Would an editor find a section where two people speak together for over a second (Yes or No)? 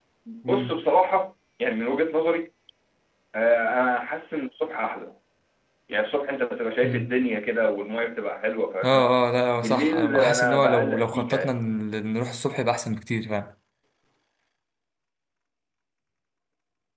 Yes